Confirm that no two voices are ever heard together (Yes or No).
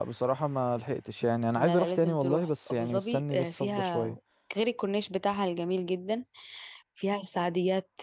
No